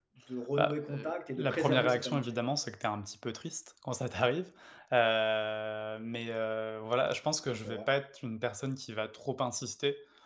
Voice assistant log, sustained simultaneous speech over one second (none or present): present